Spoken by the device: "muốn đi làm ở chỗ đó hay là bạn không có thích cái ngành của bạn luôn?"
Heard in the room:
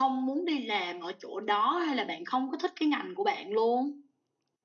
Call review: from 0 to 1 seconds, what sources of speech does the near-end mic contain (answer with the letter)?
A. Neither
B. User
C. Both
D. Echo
D